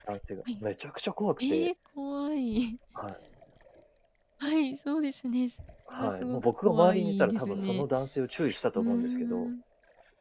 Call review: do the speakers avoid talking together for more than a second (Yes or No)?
No